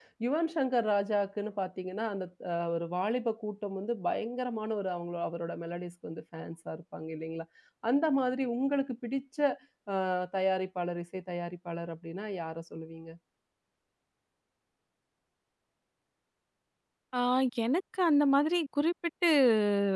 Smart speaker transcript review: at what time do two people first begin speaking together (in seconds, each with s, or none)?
none